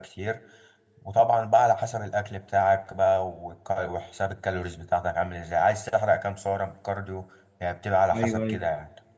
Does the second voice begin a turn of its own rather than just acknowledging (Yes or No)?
Yes